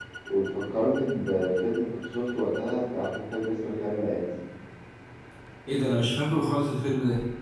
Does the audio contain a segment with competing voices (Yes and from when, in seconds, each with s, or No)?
No